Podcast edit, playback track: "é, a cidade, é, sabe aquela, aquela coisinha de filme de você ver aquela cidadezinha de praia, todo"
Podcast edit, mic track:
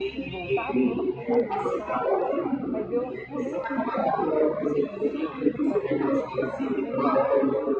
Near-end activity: present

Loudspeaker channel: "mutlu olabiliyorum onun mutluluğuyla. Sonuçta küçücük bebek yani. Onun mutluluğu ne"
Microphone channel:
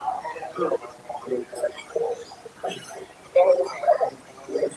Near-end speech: none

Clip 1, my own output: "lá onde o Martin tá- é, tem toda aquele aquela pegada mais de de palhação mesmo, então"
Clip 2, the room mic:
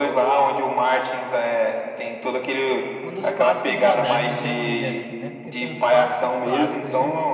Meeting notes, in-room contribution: present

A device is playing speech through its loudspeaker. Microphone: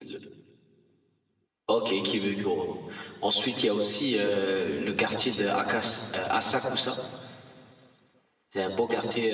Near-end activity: present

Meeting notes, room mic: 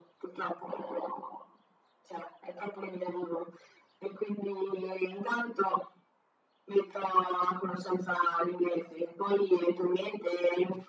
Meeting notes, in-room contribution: none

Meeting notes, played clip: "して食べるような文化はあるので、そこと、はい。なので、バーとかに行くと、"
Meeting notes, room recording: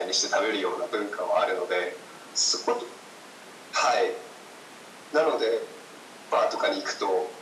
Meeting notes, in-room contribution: none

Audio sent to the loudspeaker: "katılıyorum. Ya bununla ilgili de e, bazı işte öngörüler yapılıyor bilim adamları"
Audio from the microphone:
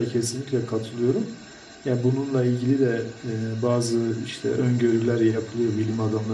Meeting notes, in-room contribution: none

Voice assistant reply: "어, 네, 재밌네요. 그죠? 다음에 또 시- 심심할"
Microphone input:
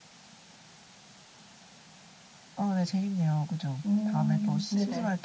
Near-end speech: present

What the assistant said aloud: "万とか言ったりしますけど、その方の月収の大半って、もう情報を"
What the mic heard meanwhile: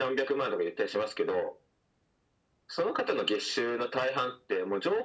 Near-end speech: none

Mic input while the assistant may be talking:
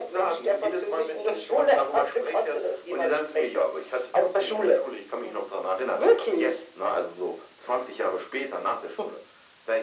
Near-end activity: none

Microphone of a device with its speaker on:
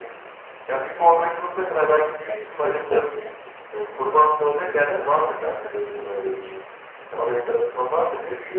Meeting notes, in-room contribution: present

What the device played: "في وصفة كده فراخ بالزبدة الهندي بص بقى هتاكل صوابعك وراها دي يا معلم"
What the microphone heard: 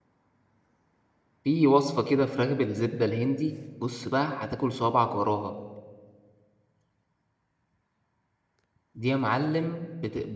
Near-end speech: none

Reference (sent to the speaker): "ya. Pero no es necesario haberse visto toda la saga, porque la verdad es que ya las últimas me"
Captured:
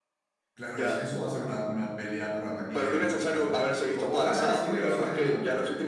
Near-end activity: present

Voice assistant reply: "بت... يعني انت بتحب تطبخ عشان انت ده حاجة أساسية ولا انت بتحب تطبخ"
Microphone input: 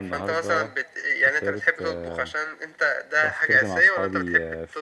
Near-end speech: present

